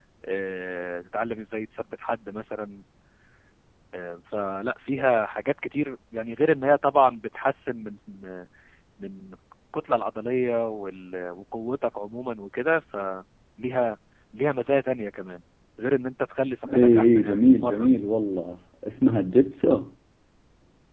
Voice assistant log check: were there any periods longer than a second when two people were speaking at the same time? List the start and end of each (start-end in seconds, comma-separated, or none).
16.8-18.0